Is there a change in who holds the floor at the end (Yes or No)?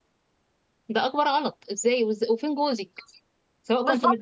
No